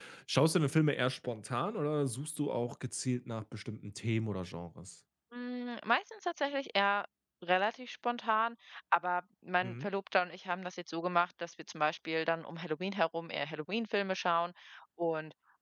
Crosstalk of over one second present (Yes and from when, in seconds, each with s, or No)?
No